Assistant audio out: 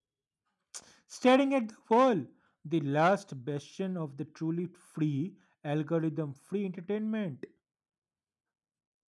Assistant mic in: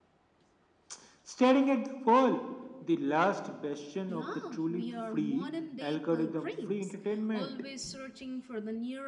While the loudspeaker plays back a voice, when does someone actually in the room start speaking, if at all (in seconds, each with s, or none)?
4.1 s